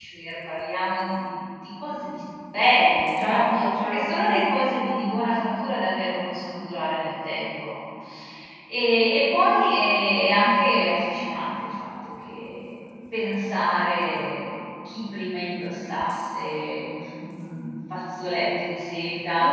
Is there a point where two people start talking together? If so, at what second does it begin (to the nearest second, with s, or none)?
3 s